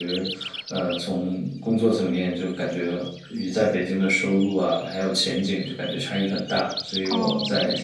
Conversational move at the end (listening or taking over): listening